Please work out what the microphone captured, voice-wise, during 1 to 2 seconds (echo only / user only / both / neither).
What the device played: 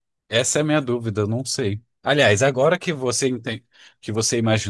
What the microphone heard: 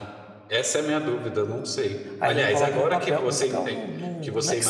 echo only